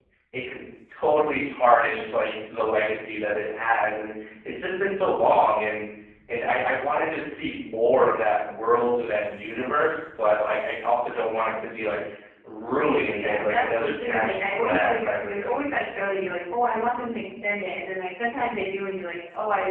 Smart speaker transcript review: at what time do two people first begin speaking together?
13 s

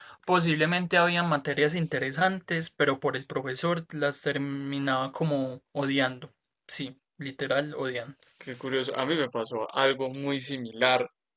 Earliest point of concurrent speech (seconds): none

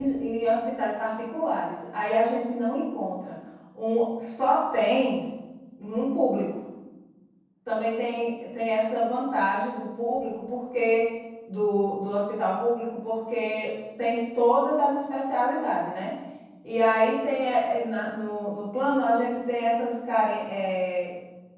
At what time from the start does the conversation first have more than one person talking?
none

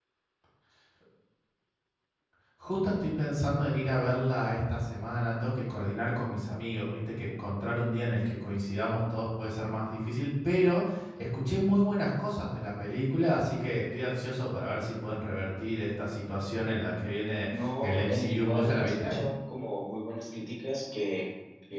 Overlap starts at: 17 s

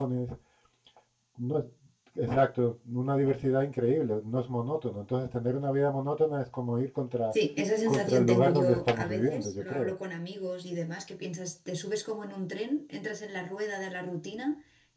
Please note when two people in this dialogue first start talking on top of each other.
8 s

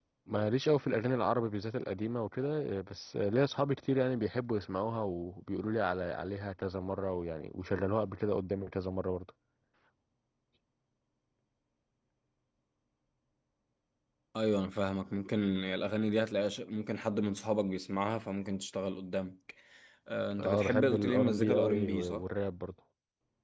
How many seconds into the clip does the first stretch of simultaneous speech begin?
20 s

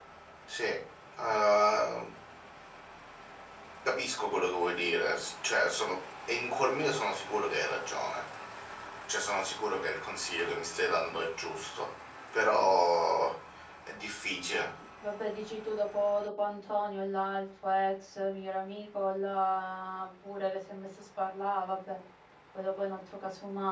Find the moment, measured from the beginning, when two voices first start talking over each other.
none

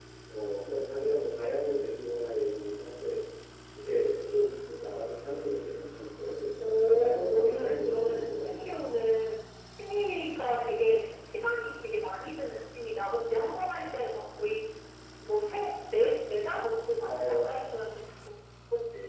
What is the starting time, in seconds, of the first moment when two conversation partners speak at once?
7 s

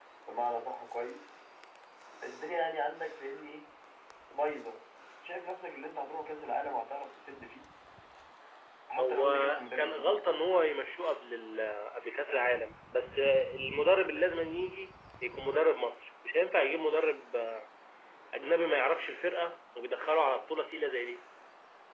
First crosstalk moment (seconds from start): 9 s

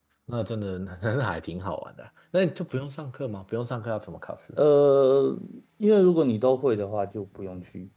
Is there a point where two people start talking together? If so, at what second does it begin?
none

